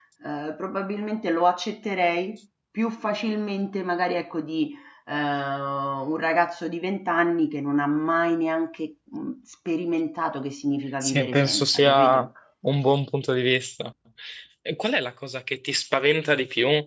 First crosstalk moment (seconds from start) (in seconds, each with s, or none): 11.0 s